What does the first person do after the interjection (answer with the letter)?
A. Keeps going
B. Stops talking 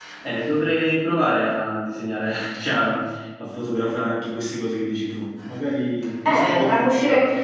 B